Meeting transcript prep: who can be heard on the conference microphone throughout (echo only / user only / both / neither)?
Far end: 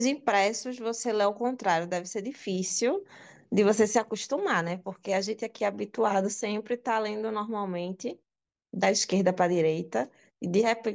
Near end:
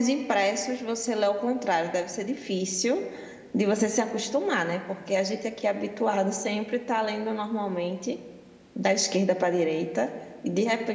echo only